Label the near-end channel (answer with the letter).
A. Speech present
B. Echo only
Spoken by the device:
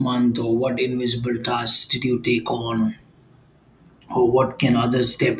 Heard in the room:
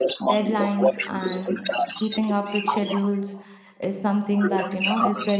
A